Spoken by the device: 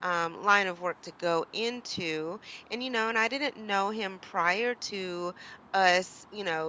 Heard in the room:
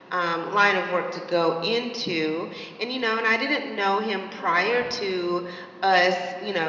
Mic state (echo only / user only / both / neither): both